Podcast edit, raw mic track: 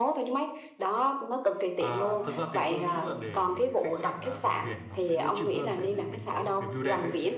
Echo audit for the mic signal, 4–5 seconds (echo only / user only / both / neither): both